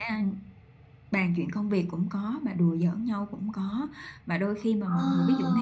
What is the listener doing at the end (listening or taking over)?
listening